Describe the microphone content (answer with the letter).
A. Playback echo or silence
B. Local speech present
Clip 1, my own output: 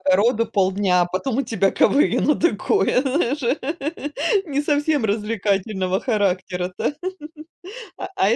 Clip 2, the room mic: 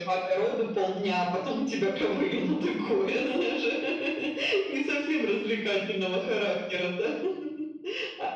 A